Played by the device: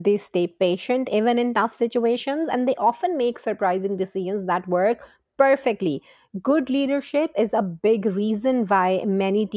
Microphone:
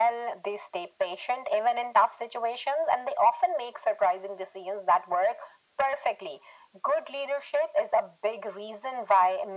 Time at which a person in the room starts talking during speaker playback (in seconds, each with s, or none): none